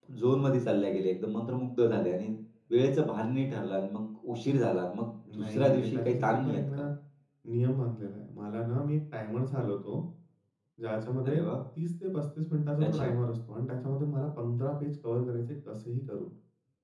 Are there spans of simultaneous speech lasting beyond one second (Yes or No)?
Yes